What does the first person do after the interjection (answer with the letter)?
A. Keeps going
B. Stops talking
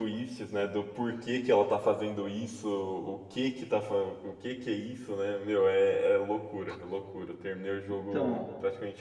A